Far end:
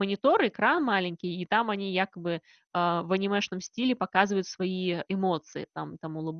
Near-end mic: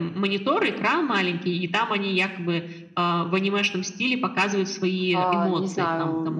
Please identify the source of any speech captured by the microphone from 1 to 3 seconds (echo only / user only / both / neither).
echo only